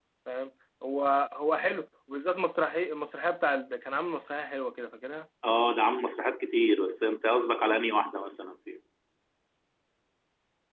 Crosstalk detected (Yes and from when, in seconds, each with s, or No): No